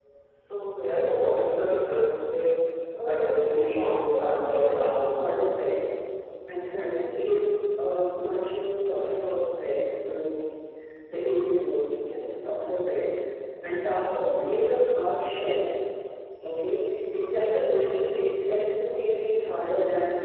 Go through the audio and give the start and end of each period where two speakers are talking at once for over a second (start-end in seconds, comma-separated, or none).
3.0-5.3